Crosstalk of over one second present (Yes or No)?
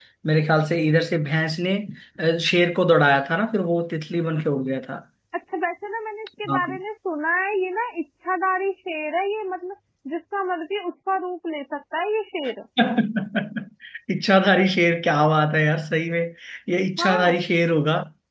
No